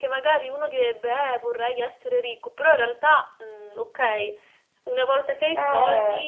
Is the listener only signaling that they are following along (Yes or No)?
Yes